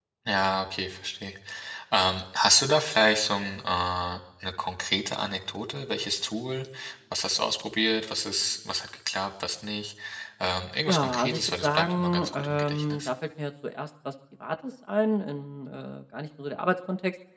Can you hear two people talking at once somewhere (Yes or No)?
Yes